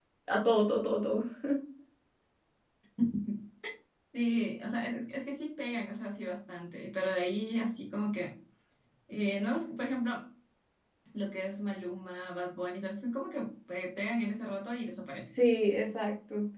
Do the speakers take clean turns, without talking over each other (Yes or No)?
Yes